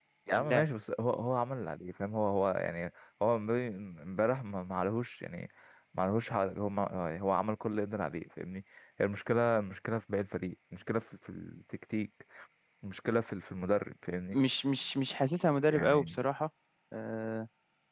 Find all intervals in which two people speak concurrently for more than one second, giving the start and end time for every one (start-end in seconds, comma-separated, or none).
none